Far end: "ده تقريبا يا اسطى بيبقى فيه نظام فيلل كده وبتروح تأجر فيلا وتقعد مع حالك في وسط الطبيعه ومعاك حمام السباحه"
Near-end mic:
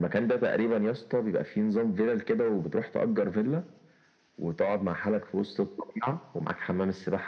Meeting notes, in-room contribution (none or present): none